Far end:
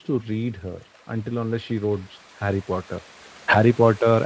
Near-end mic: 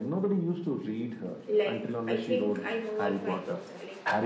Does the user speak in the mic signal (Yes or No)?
Yes